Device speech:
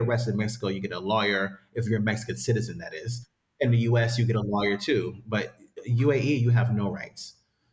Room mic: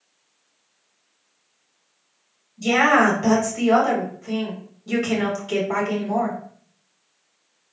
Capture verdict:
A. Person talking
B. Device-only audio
A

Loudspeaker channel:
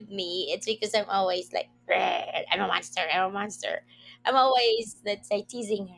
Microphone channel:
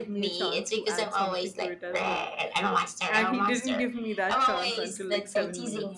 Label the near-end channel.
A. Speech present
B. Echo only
A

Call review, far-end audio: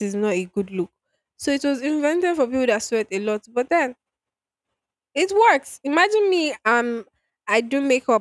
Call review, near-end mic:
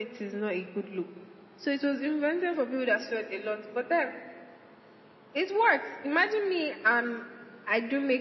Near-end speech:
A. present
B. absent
B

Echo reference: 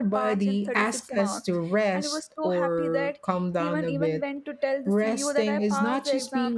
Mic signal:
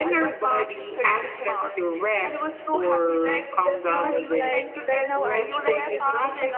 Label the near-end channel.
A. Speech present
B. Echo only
A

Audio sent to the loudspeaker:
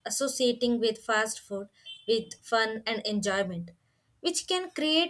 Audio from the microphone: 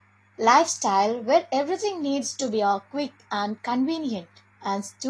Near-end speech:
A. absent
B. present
B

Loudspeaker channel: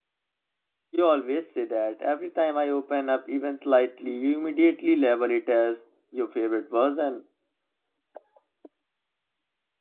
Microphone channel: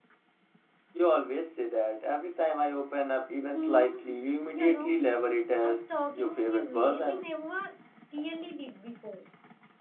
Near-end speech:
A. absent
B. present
B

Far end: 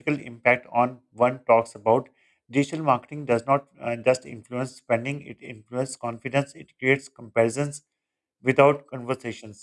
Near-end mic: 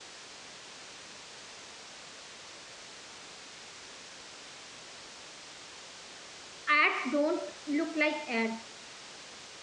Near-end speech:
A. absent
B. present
B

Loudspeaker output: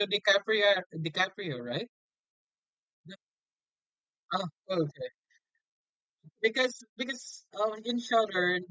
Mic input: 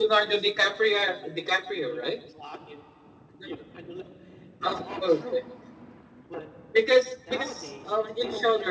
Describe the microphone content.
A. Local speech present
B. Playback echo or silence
A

